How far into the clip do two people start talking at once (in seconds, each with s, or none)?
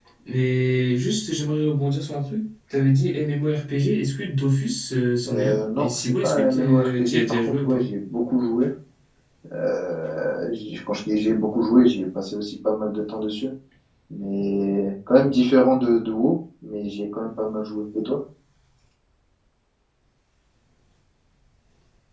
5.2 s